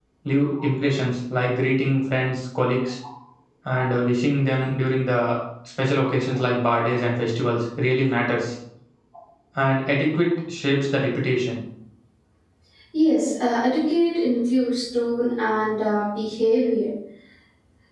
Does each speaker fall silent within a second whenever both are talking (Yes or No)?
Yes